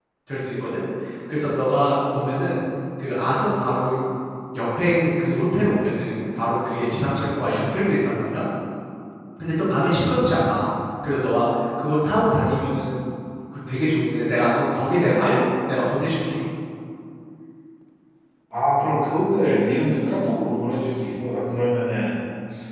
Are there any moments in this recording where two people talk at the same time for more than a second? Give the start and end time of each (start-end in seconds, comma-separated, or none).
none